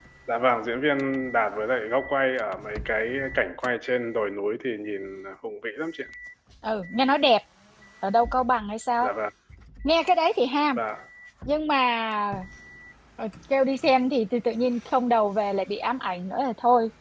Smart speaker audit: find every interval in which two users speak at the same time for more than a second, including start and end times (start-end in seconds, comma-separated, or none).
none